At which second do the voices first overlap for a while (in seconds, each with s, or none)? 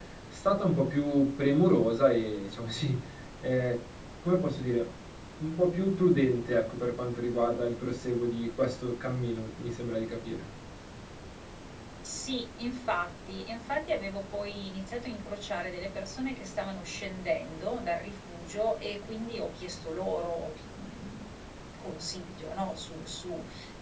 none